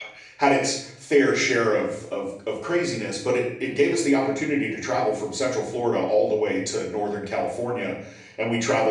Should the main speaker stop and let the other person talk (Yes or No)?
No